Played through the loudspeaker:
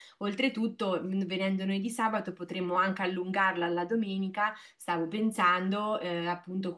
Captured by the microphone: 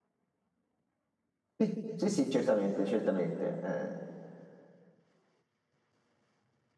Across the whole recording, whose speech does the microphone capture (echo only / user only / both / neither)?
user only